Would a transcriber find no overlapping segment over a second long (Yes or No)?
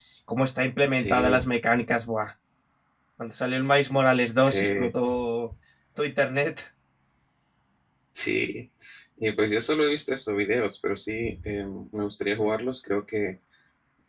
Yes